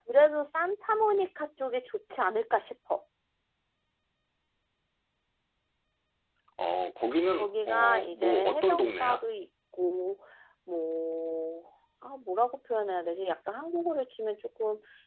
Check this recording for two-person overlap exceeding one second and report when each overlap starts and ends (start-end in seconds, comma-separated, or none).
7.3-9.2